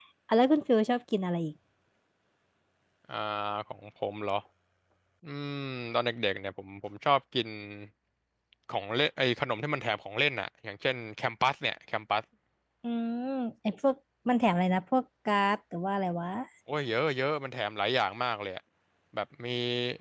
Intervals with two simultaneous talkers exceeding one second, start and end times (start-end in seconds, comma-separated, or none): none